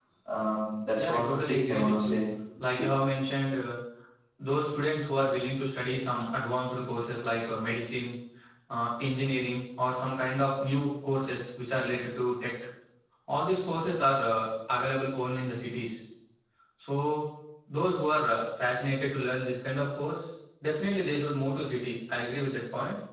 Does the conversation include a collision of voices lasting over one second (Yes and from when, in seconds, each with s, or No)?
Yes, from 1.0 s